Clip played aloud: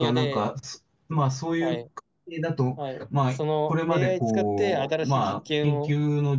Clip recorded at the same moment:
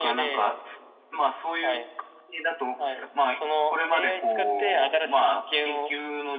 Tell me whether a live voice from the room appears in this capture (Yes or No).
No